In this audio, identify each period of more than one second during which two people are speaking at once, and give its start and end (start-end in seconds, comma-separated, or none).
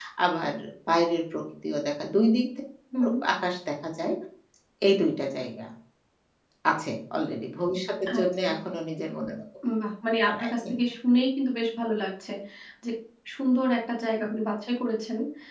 none